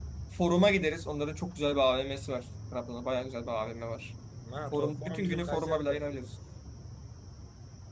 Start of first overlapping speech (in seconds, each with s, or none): 4.7 s